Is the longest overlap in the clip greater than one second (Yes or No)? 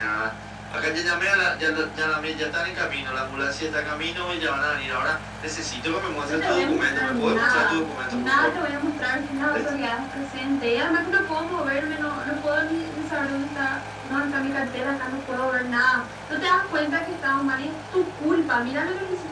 Yes